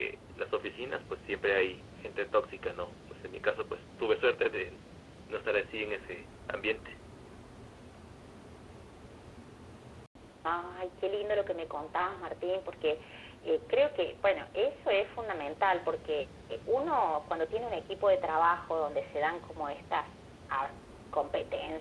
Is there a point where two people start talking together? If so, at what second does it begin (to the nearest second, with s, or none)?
none